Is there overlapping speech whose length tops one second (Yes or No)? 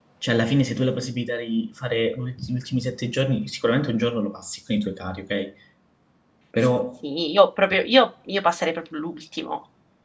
No